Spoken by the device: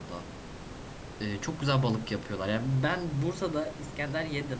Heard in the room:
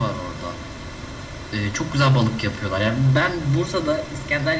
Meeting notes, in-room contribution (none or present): none